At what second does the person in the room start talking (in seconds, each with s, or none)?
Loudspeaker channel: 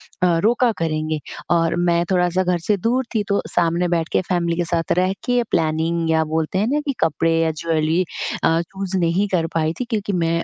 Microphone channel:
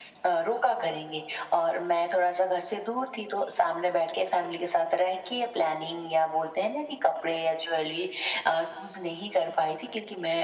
none